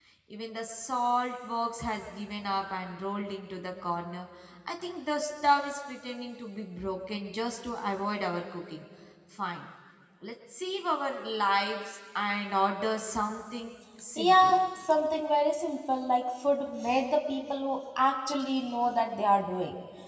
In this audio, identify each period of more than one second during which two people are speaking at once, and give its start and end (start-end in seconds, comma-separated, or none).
none